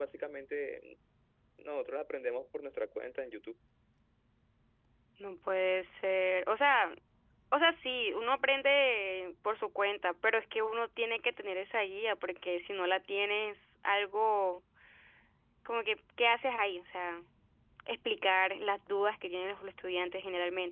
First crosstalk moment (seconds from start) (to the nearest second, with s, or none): none